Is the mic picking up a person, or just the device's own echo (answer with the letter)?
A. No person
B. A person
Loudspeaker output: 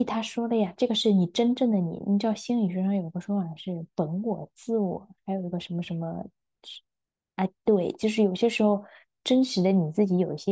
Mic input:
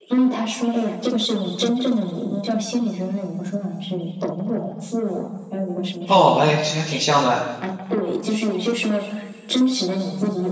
B